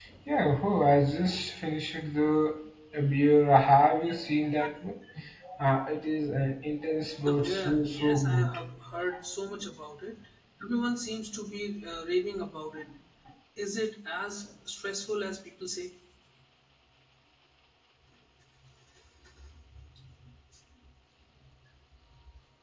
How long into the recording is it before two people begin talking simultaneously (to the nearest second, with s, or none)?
7 s